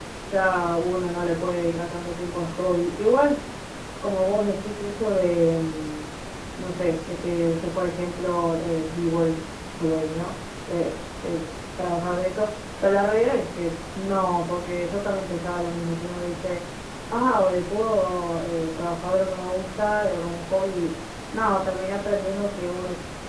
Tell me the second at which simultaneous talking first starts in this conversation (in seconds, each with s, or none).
none